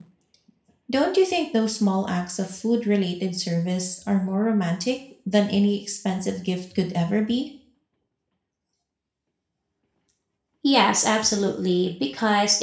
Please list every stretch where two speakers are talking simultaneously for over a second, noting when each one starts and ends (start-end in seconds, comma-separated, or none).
none